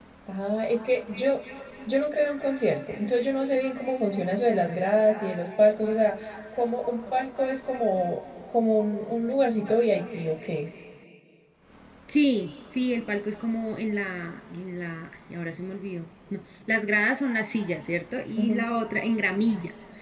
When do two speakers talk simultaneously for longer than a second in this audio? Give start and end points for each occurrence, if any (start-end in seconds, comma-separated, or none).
none